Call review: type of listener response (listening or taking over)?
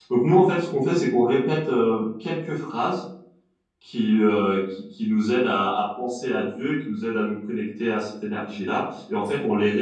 listening